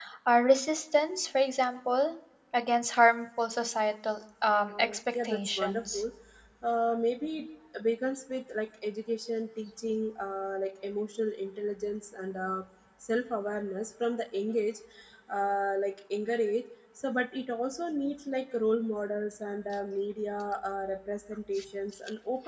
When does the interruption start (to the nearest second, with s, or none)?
5 s